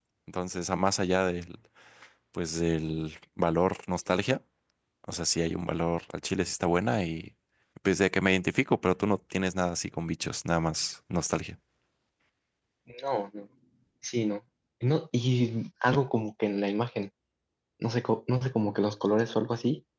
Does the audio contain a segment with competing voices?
No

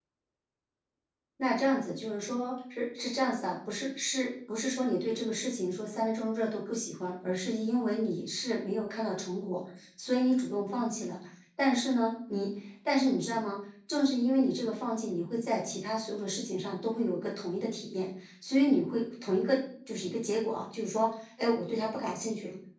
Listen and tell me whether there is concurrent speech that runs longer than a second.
No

